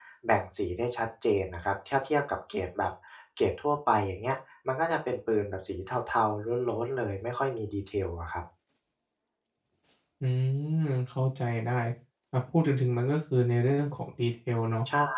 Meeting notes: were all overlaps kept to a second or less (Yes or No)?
Yes